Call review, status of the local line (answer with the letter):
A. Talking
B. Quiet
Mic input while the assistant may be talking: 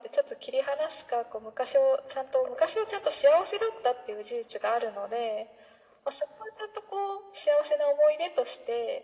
B